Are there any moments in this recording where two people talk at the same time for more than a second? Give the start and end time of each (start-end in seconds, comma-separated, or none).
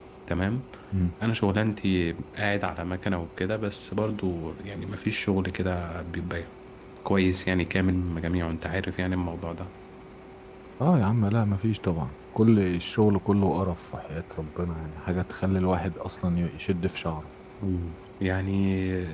none